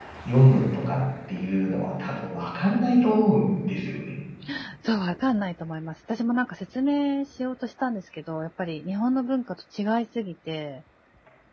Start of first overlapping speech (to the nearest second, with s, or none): none